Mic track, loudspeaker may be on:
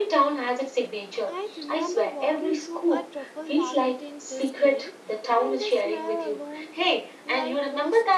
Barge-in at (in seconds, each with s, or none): 1.3 s